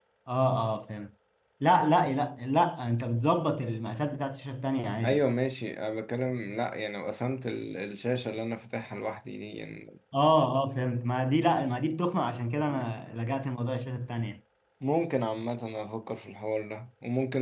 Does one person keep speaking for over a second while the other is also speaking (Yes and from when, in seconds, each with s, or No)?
No